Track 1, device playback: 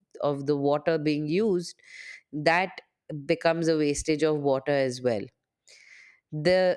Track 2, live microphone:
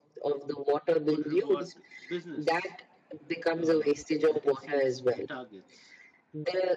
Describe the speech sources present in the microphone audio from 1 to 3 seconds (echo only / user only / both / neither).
both